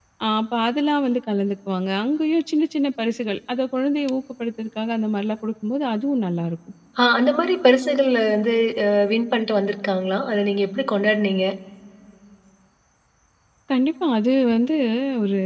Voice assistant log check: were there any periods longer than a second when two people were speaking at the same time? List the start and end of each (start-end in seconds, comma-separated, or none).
none